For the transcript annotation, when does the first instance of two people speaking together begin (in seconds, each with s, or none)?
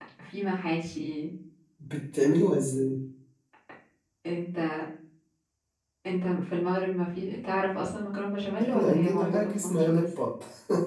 8.6 s